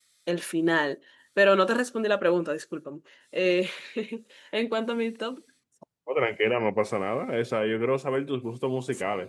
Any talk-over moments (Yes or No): No